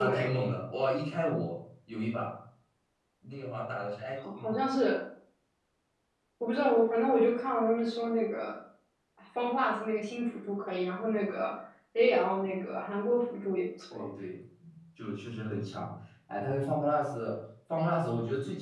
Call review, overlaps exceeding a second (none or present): none